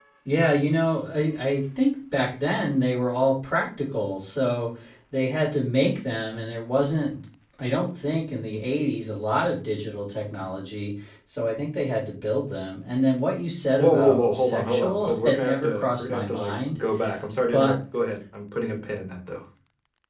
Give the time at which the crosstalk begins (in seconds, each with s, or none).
13.8 s